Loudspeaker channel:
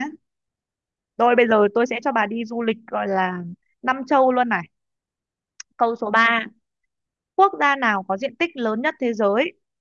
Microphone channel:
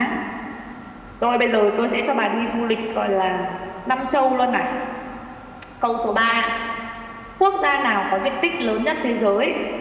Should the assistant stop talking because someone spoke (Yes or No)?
No